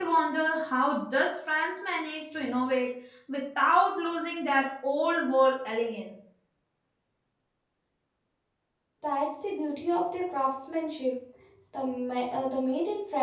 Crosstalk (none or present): none